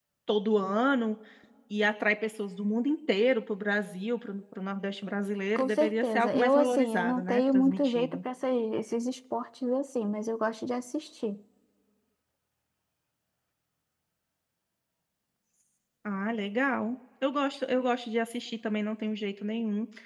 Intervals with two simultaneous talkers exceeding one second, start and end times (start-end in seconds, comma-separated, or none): 5.6-8.2